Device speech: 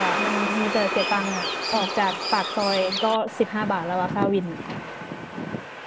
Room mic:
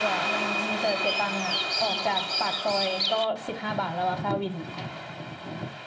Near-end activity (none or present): none